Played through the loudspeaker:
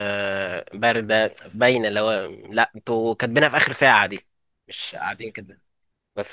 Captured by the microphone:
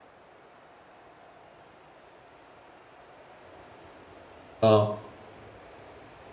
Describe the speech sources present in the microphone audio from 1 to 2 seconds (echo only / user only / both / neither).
neither